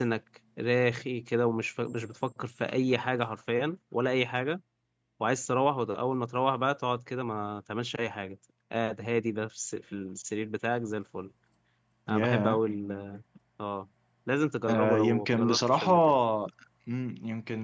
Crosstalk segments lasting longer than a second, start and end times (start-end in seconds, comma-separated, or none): 14.7-15.9